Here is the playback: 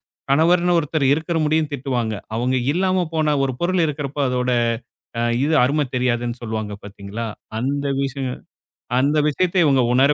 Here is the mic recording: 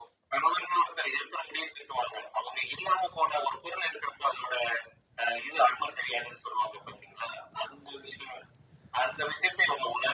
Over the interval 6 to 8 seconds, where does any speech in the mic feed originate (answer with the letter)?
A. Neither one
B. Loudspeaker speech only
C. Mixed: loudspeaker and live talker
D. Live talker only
B